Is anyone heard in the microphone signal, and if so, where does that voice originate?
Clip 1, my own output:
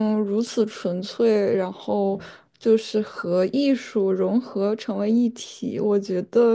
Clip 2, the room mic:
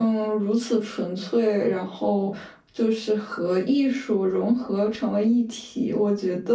echo only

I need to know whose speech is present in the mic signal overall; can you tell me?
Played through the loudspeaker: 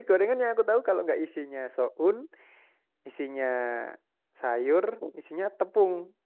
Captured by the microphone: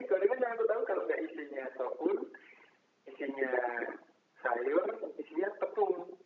echo only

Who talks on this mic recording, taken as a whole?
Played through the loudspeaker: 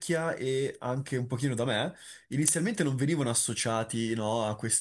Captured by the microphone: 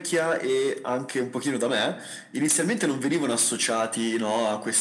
echo only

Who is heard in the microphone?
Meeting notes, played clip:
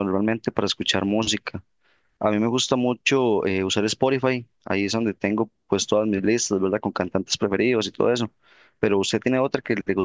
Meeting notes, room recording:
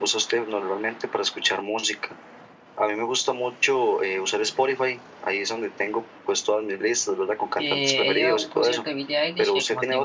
both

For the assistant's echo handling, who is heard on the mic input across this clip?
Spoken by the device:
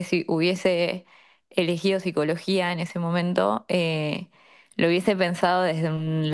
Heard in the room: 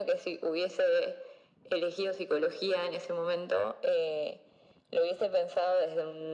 echo only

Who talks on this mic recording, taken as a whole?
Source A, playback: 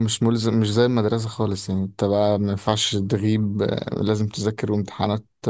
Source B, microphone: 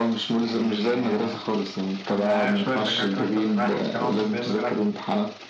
both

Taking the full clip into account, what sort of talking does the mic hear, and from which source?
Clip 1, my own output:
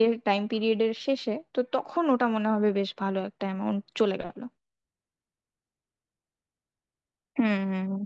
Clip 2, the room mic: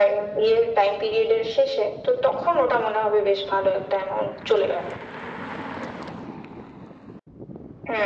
echo only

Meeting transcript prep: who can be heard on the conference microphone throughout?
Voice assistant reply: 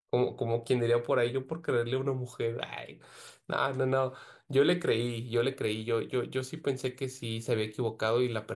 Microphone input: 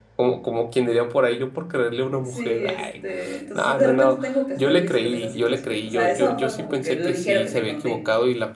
both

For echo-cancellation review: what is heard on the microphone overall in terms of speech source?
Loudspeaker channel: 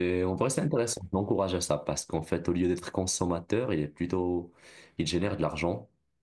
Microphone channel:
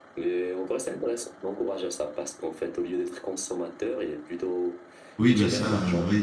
both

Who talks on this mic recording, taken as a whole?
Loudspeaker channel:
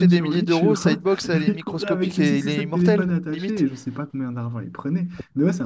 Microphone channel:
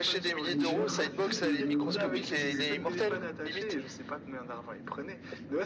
both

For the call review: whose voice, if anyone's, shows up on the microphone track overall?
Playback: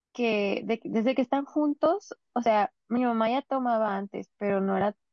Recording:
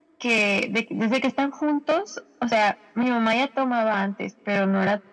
echo only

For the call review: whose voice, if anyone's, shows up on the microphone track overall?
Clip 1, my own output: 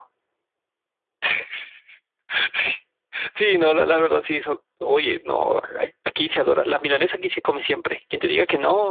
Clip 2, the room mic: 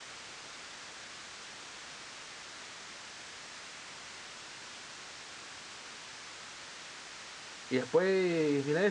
user only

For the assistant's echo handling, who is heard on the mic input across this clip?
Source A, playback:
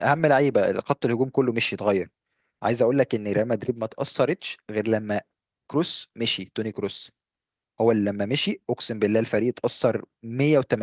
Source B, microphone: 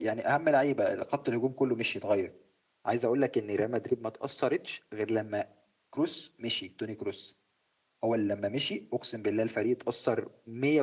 echo only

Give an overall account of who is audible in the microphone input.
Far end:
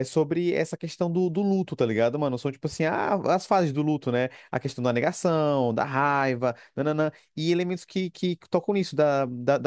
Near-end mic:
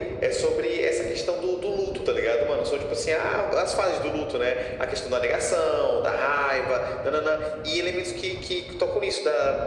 echo only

